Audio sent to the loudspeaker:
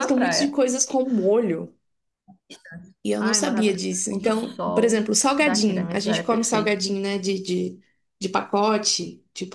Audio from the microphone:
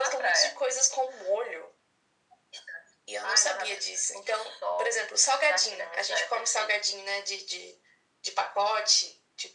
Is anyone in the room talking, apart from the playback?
No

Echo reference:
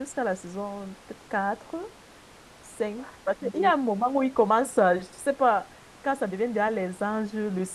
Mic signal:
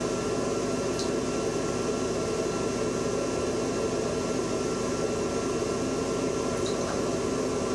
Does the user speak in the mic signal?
No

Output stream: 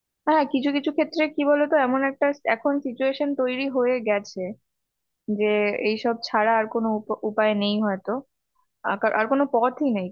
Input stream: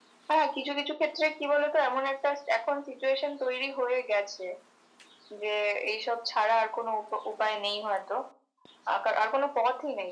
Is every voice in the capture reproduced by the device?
Yes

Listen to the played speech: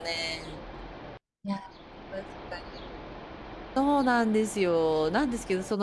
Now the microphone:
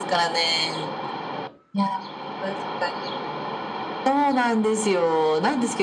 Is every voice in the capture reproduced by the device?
Yes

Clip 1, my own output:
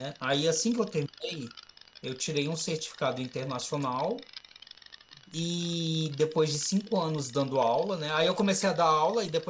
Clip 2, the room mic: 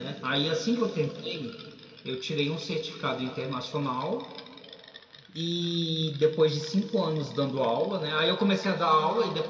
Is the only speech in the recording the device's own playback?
Yes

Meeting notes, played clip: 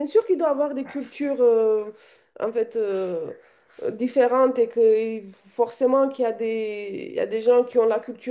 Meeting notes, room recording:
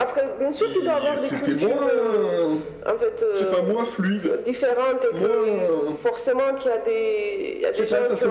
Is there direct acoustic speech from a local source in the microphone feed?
Yes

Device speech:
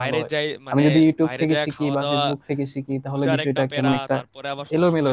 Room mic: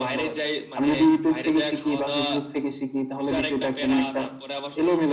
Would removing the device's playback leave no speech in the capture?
Yes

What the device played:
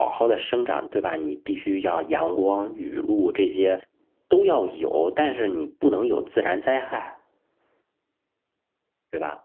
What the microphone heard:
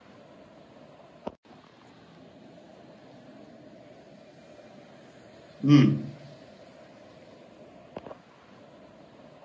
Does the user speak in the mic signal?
Yes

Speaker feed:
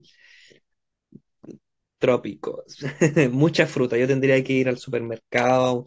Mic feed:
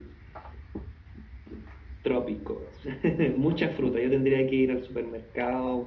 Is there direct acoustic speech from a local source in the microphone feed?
No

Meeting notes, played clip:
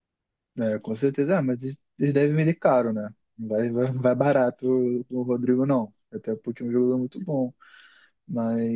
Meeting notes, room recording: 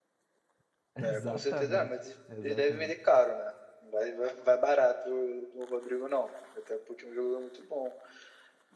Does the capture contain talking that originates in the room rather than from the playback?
Yes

